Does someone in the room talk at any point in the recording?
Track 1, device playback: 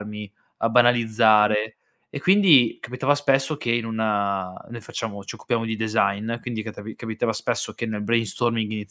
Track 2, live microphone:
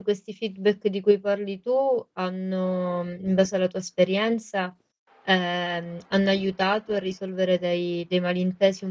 Yes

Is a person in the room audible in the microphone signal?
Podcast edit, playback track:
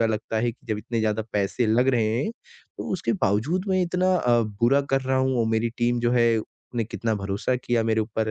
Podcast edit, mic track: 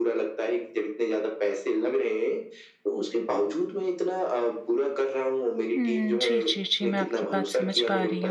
Yes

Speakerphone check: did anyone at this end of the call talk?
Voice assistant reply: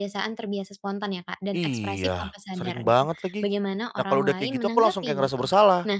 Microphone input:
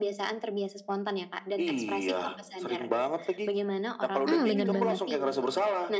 Yes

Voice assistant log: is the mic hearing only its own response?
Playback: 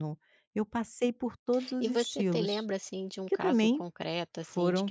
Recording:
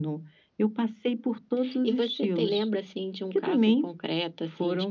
Yes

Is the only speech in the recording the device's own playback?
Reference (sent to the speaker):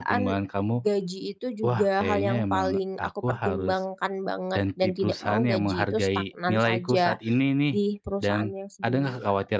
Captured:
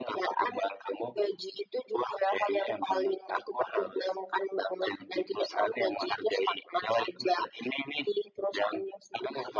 Yes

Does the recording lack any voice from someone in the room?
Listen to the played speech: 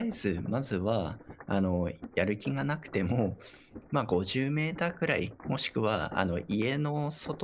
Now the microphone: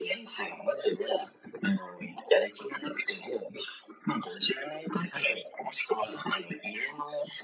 No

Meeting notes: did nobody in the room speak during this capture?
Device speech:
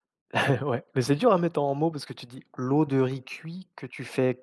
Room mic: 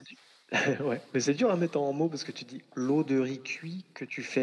Yes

